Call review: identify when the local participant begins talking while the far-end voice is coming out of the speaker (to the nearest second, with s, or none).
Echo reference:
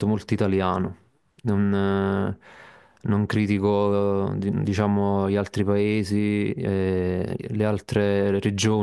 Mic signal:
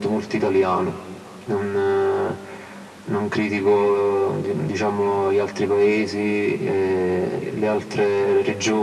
none